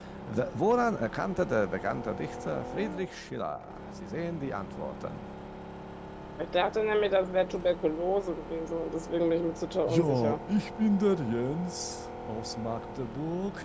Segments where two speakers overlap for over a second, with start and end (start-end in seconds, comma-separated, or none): none